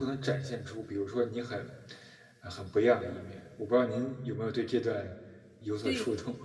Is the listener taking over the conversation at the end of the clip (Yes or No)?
Yes